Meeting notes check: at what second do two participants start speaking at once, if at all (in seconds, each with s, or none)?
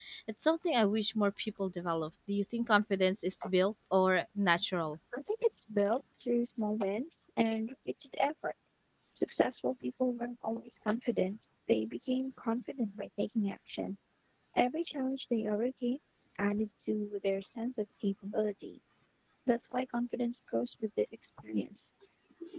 none